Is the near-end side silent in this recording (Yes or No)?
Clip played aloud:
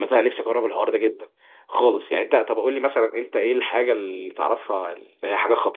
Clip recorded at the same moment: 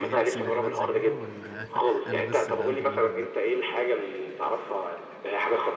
No